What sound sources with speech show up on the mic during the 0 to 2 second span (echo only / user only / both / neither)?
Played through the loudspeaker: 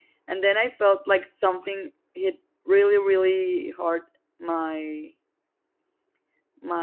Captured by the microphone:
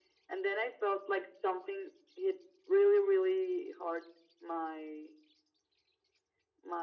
echo only